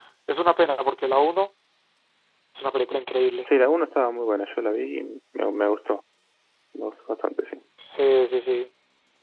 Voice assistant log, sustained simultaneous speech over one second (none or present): none